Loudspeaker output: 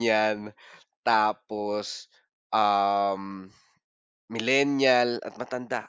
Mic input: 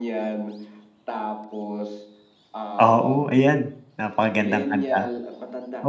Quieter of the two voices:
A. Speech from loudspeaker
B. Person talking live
A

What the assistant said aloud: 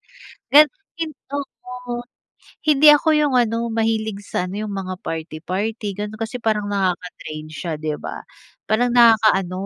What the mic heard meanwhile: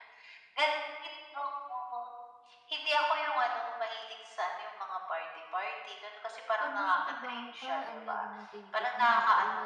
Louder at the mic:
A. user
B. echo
B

